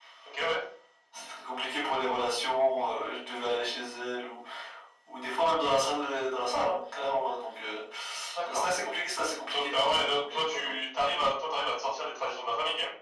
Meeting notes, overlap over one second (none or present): present